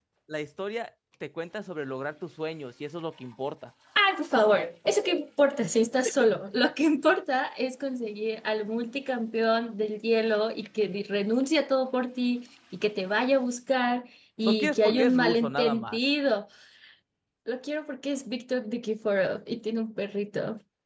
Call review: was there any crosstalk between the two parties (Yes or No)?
Yes